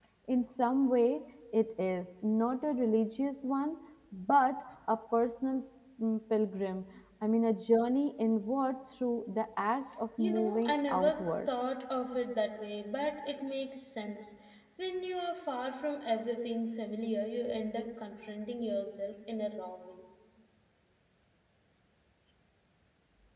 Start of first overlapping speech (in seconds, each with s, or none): 10.2 s